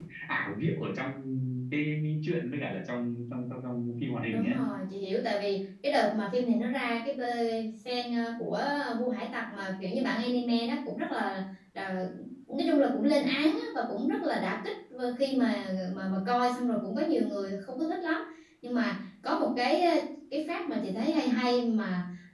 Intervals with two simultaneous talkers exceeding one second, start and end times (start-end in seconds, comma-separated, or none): none